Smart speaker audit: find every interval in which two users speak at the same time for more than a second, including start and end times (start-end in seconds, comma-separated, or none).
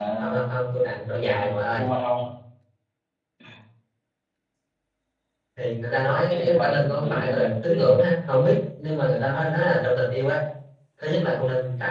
6.3-7.5